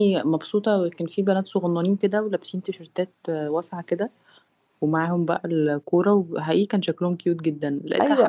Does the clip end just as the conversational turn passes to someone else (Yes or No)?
No